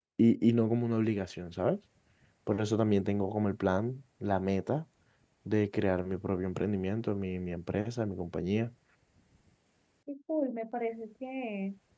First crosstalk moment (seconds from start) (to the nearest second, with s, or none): none